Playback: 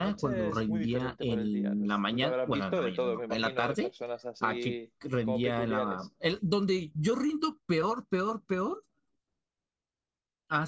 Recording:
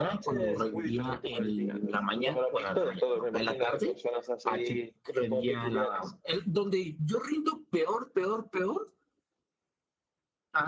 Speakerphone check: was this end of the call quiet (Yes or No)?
Yes